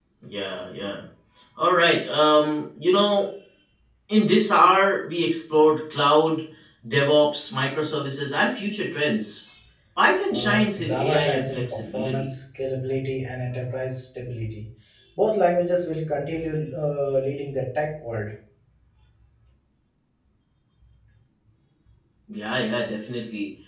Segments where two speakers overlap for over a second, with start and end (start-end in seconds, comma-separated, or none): 10.3-12.3